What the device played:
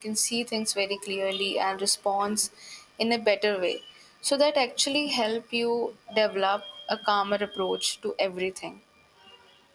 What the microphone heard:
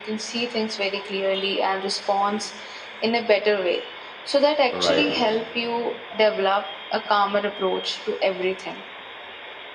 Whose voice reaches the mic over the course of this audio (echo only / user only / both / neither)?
both